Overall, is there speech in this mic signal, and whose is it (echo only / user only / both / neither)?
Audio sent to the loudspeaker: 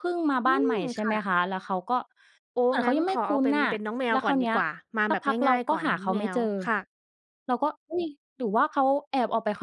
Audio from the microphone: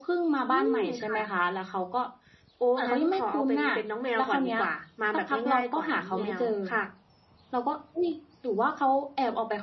echo only